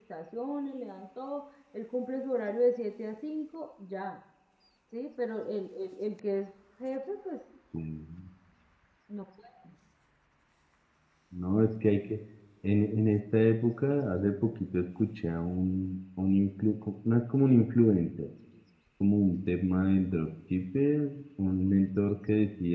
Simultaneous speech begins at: none

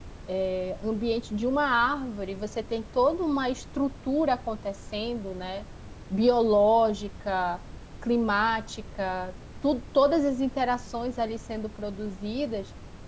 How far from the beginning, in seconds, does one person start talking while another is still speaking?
none

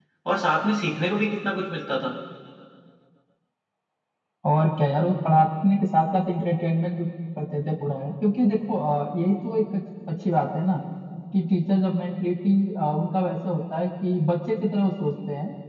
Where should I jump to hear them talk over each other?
none

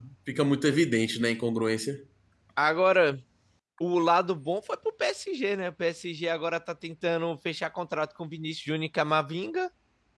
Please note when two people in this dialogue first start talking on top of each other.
none

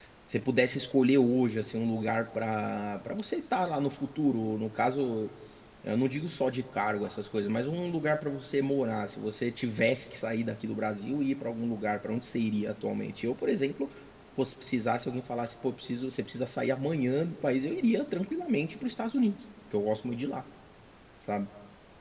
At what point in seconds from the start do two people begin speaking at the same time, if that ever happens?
none

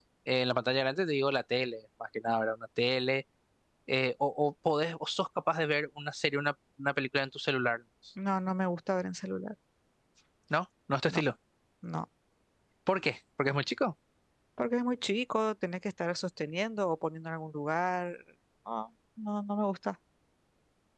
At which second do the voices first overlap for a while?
none

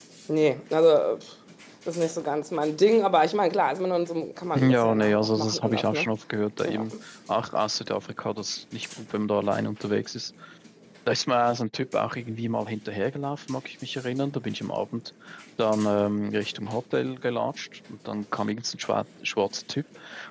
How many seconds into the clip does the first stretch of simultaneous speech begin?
4.5 s

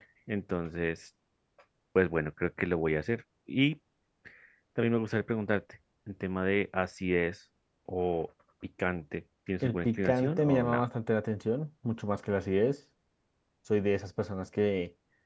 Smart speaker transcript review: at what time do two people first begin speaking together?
9.6 s

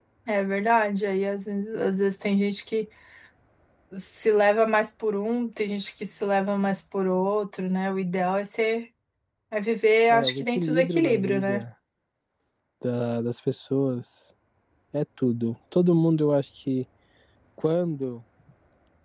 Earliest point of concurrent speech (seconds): 10.1 s

